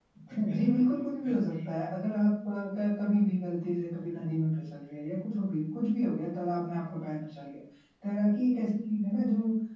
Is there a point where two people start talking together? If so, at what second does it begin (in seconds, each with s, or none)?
0.5 s